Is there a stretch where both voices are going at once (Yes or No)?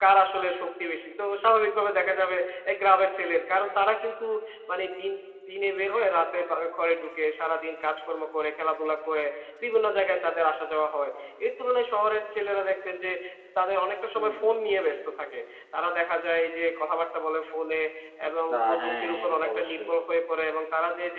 Yes